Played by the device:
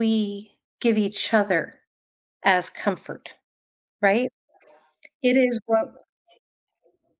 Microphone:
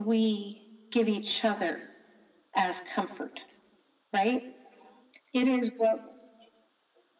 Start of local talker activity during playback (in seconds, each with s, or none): none